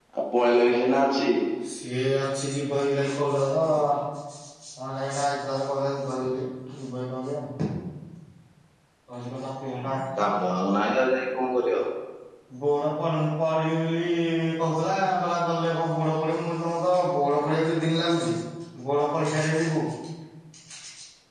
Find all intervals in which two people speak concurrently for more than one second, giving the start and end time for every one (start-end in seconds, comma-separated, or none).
none